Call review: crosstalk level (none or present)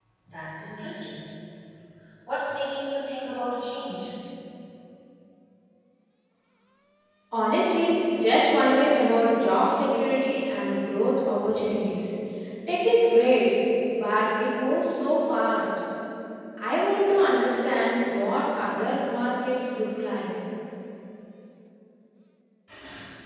none